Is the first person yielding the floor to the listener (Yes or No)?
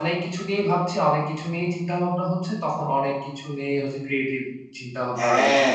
Yes